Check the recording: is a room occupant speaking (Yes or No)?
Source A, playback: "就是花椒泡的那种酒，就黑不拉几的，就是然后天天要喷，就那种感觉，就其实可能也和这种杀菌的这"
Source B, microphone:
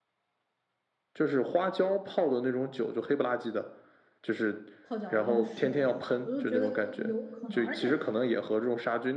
Yes